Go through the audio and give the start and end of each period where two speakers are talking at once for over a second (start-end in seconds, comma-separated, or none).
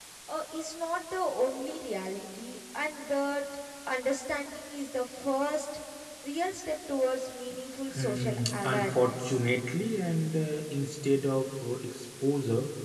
7.9-9.4